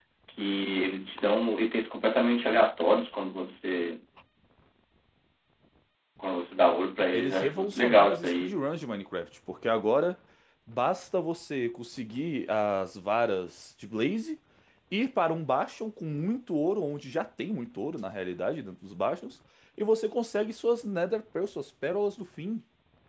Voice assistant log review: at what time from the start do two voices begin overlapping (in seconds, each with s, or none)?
7.1 s